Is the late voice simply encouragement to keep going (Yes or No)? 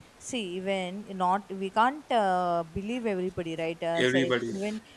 Yes